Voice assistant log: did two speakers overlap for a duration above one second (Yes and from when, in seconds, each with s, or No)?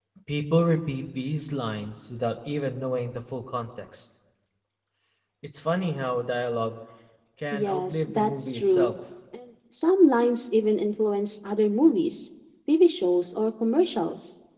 Yes, from 7.5 s